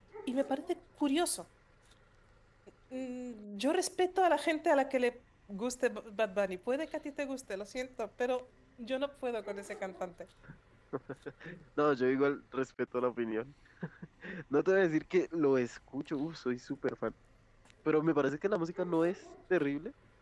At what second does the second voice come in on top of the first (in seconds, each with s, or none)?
none